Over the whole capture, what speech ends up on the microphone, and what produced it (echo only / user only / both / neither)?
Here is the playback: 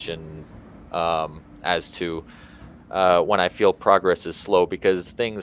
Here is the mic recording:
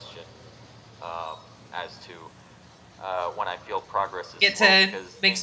both